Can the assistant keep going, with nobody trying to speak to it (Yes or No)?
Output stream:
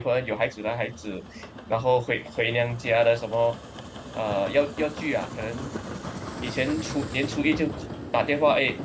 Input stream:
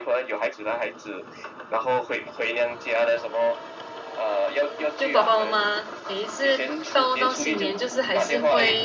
No